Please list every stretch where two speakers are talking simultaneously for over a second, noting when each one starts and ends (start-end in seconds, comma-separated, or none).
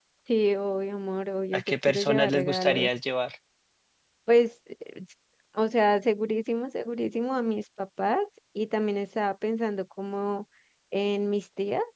1.5-2.9